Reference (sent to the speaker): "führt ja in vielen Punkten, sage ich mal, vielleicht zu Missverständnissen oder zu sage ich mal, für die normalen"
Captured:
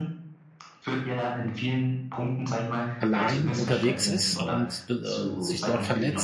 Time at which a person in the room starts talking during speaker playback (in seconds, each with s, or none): 3.0 s